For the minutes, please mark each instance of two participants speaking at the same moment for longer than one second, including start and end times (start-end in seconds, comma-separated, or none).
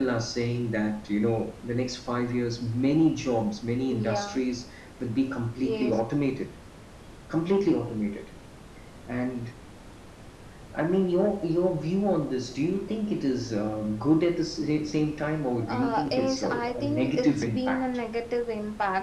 15.7-17.8